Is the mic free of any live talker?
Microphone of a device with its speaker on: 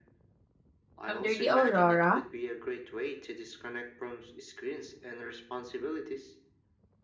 No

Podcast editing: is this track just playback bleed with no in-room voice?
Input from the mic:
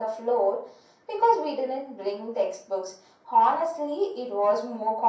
Yes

